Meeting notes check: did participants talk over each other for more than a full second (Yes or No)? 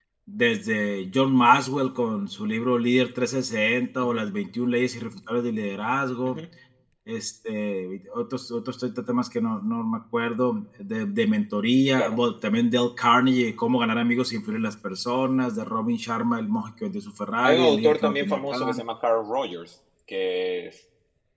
Yes